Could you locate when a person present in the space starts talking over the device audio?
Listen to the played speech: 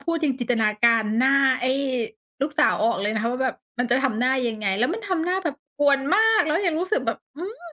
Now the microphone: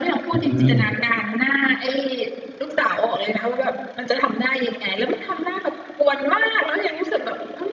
0.3 s

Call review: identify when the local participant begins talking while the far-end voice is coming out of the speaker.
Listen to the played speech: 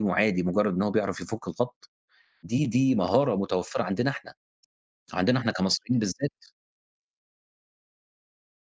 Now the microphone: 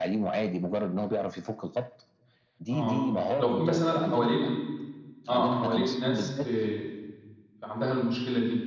2.7 s

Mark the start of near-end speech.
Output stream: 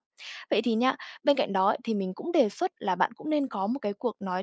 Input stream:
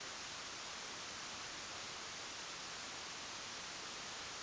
none

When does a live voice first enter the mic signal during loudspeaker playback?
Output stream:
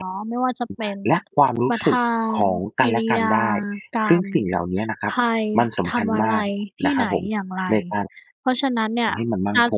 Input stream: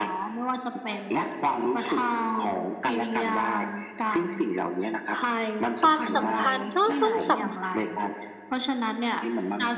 5.8 s

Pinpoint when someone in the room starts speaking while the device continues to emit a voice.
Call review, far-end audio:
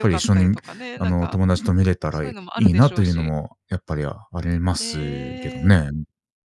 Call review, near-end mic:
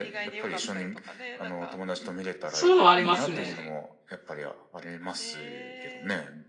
2.5 s

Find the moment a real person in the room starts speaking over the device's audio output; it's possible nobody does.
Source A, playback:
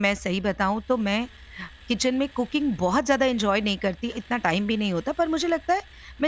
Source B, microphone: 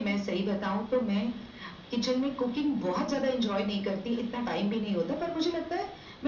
none

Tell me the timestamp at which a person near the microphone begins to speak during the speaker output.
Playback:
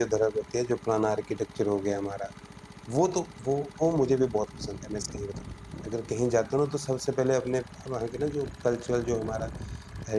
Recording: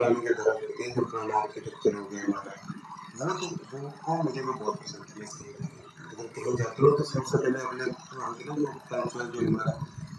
none

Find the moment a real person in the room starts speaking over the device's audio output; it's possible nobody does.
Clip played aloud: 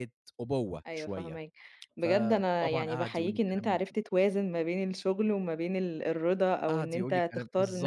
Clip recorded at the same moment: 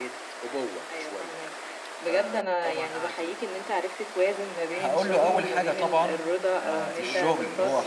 4.8 s

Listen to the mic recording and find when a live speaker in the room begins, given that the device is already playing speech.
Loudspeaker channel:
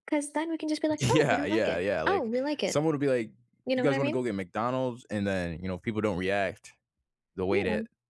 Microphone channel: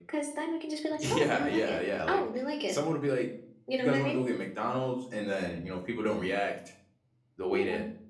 none

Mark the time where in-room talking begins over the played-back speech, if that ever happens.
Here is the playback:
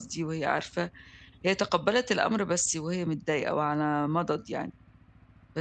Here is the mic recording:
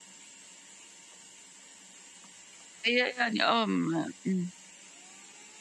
2.9 s

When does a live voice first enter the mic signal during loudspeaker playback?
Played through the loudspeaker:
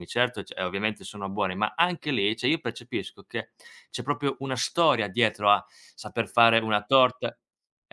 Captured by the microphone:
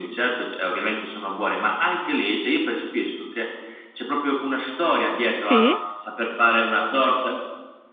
5.4 s

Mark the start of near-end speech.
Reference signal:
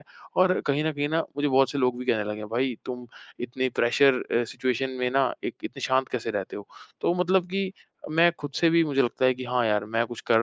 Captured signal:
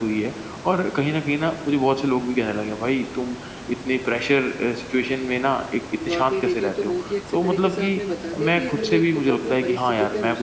6.1 s

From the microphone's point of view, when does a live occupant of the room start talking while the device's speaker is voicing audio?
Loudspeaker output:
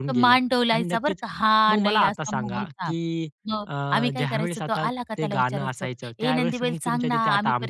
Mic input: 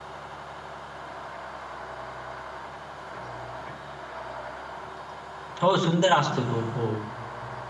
5.6 s

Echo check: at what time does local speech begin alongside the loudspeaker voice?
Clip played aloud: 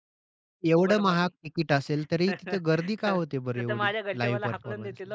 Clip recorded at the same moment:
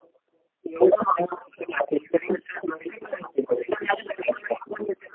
none

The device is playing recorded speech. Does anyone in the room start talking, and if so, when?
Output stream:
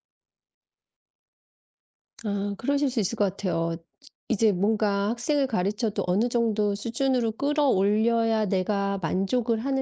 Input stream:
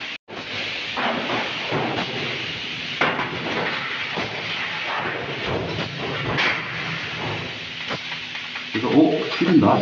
8.7 s

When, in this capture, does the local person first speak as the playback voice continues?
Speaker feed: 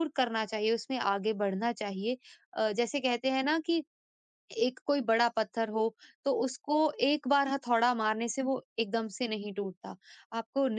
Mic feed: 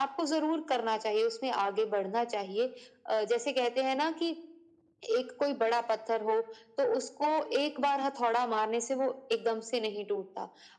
none

